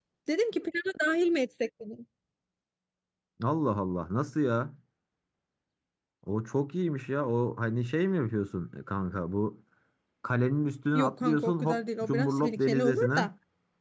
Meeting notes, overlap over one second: present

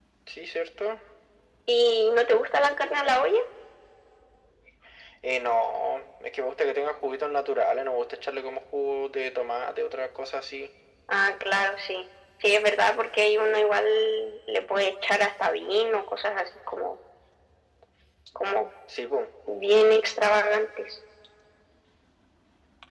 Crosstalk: none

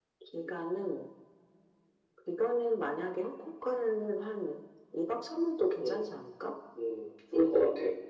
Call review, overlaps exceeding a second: none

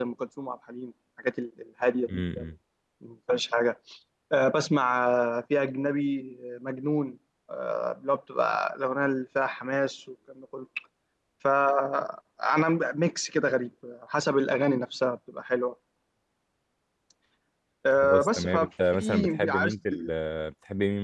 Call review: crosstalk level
present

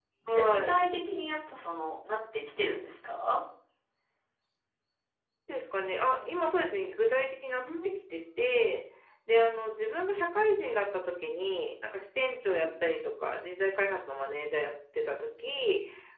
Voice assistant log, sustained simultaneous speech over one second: none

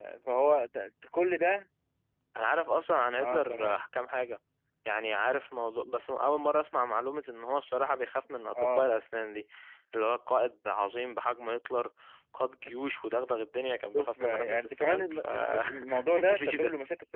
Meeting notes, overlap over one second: present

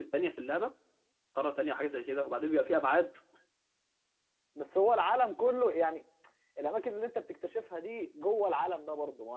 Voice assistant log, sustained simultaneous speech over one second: none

